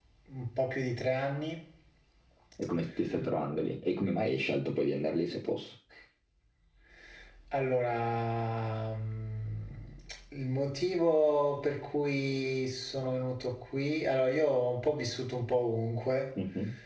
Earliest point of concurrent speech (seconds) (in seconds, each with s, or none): none